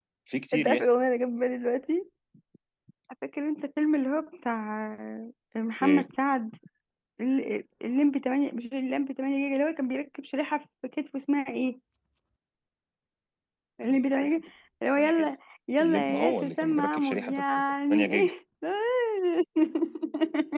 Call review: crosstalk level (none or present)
present